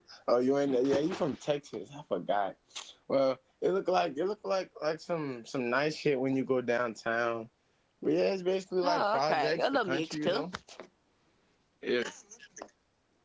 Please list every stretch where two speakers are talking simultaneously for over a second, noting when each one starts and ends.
8.8-10.4

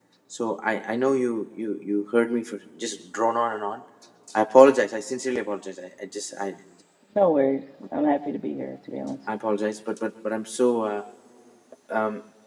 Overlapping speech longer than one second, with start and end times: none

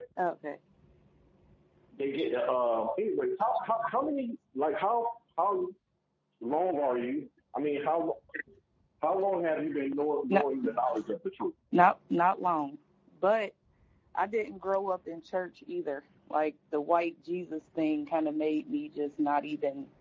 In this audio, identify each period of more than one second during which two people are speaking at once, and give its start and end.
none

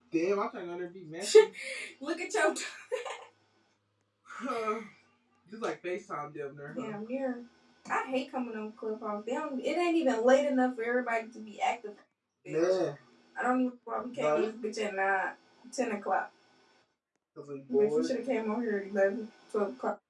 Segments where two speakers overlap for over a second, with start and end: none

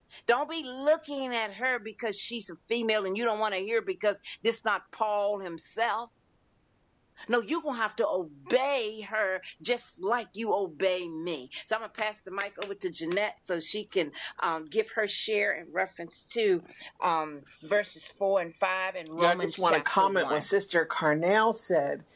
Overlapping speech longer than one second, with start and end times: 19.2-20.4

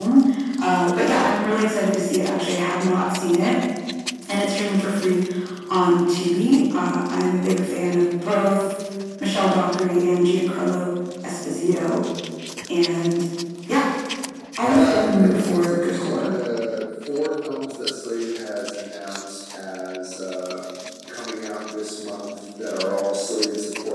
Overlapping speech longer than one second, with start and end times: 14.6-16.3

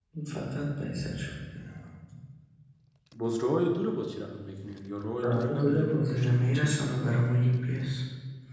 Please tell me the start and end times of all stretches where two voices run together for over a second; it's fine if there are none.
5.2-6.8

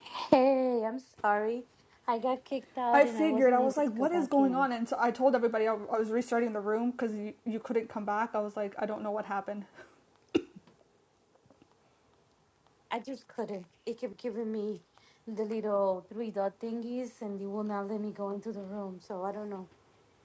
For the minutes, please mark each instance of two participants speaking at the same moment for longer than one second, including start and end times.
2.9-4.7

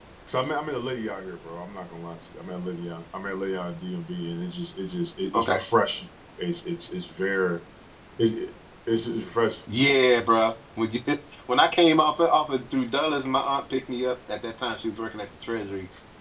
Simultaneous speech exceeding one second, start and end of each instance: none

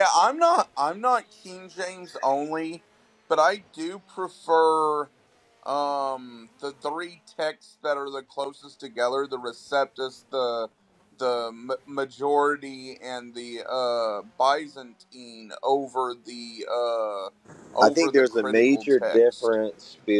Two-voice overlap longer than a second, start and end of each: 17.8-19.5

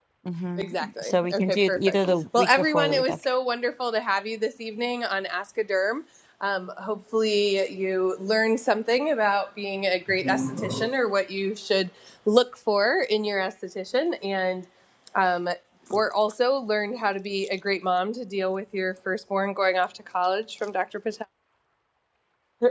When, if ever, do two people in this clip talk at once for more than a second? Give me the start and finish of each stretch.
0.6-3.1

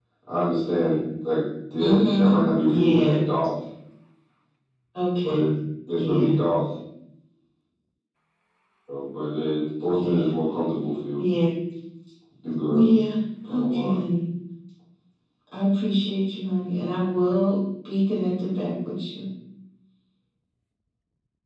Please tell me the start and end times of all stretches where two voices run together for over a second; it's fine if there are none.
1.8-3.2

